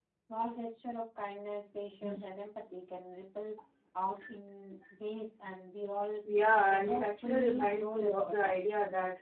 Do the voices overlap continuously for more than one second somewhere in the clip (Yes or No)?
Yes